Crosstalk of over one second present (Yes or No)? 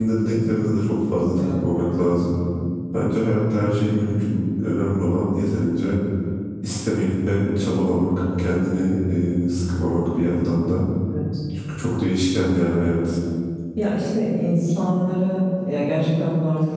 No